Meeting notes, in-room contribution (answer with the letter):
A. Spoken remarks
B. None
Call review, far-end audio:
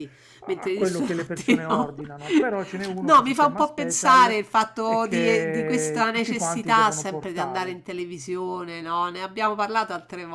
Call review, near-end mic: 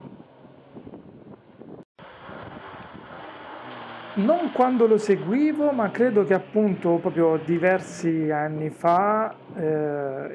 A